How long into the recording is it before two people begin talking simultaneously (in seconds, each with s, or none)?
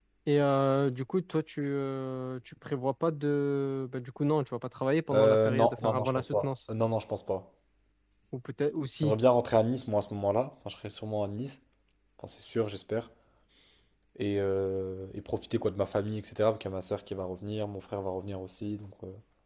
5.1 s